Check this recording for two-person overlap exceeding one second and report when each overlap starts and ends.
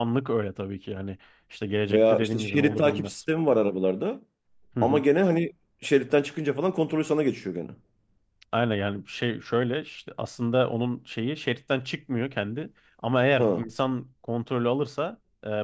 1.9-3.2

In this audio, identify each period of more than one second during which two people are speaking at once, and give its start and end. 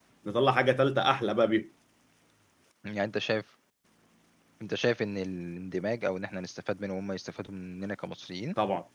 none

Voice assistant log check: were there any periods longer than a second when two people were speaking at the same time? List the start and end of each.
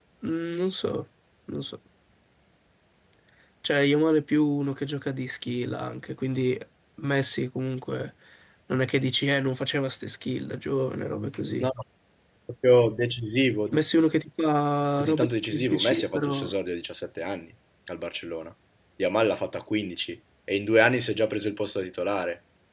14.9-16.5

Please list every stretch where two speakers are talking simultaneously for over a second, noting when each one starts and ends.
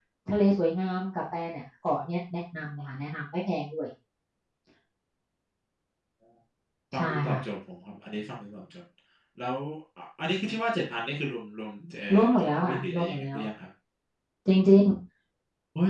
12.1-13.4

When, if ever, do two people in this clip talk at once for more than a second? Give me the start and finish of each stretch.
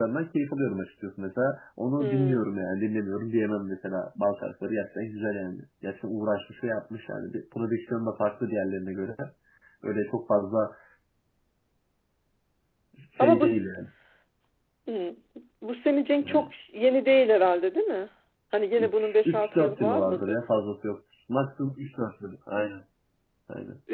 18.8-20.4

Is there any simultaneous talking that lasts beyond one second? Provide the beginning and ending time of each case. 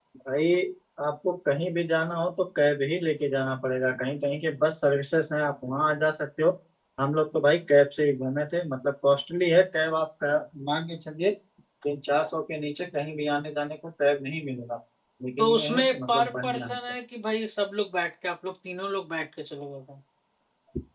15.4-16.9

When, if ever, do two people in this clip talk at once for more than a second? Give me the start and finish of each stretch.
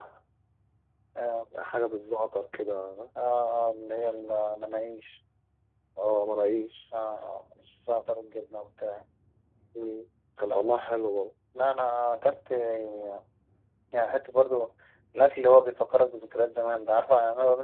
none

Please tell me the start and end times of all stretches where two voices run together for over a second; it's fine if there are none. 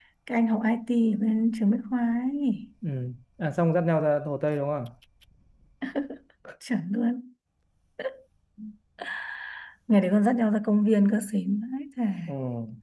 none

